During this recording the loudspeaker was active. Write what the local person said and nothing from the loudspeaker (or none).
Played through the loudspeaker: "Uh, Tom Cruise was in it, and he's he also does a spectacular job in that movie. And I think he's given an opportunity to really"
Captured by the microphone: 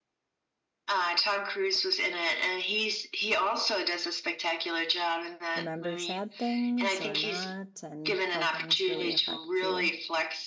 remember sad things or not and how things really affect you.